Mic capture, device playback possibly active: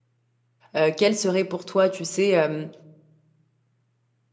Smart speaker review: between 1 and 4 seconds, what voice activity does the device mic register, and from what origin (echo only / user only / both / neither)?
user only